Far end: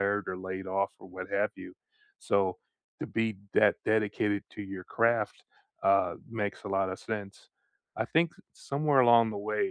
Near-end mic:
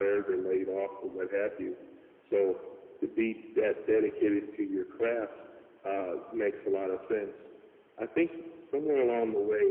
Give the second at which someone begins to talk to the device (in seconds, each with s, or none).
none